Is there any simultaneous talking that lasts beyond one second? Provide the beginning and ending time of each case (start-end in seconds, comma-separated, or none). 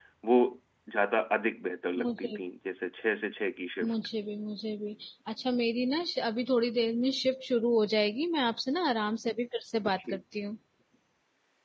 none